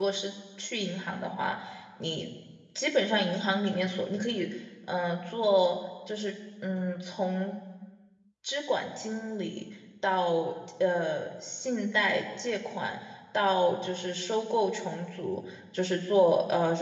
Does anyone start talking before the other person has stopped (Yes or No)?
No